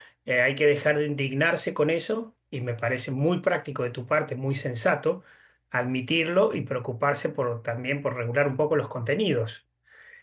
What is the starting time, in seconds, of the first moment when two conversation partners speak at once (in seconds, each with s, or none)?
none